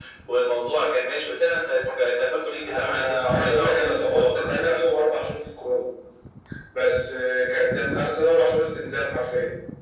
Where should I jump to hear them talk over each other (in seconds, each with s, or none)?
2.5 s